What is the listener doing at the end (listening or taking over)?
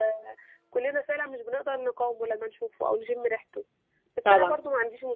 listening